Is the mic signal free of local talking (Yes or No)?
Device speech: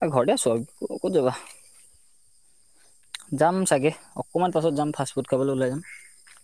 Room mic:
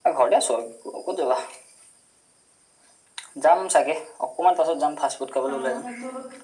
No